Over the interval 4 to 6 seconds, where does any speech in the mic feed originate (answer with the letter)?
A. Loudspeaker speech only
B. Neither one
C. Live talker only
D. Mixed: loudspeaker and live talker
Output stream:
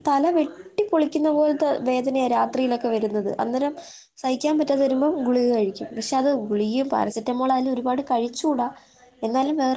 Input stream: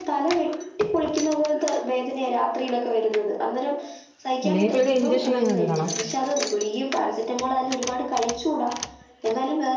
D